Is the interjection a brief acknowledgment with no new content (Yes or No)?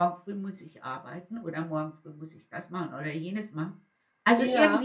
Yes